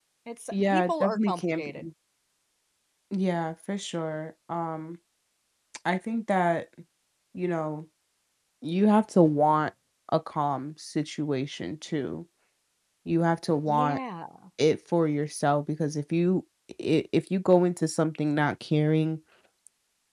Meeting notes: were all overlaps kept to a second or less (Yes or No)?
No